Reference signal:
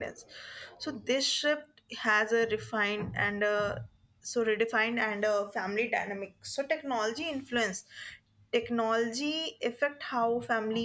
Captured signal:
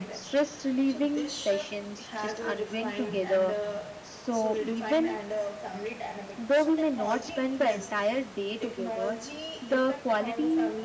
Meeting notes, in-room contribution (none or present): present